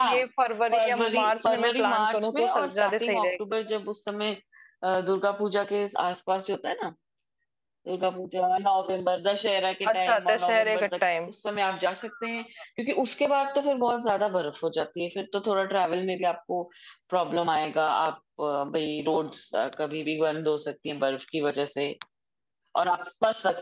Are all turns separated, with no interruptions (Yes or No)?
No